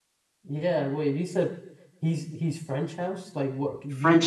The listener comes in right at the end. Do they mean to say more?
Yes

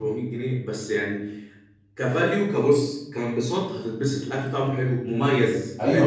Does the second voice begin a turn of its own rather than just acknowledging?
Yes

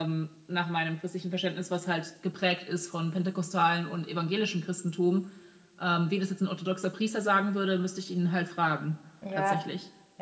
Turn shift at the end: Yes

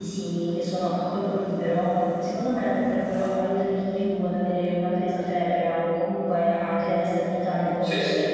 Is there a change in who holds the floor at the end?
Yes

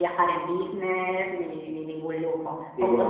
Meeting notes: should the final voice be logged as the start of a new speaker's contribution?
No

